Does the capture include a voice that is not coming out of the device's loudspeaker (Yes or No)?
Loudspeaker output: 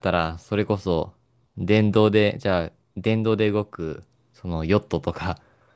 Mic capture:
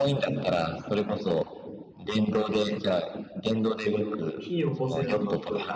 Yes